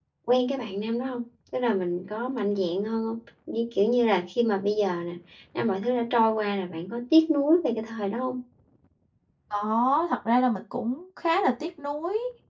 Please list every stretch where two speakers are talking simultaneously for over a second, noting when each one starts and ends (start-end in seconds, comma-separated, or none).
none